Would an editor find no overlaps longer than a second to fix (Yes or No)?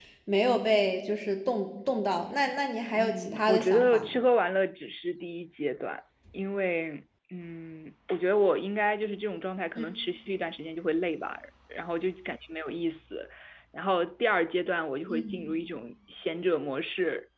No